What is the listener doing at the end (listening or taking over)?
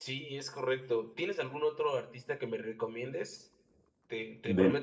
listening